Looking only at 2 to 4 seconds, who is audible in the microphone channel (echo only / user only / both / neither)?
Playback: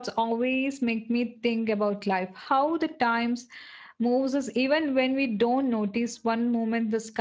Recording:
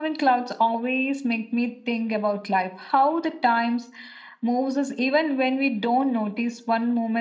echo only